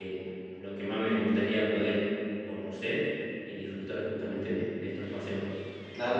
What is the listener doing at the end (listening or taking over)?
listening